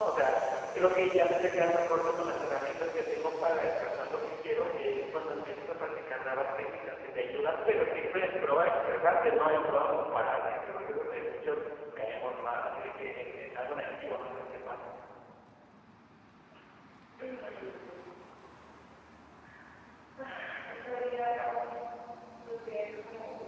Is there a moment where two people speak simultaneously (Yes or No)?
No